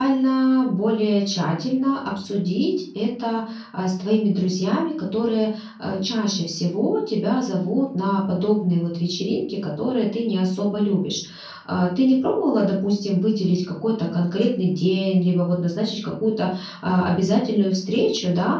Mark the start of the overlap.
none

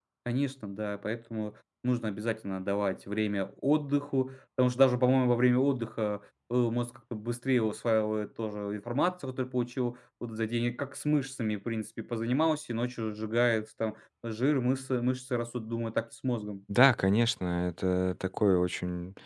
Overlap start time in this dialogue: none

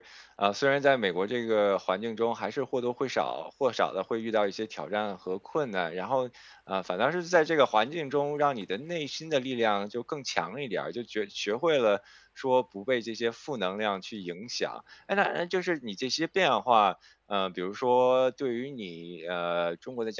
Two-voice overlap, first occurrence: none

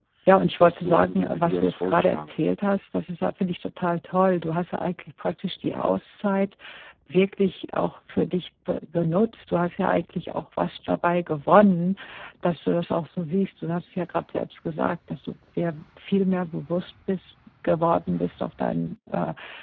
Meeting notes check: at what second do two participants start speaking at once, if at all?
1 s

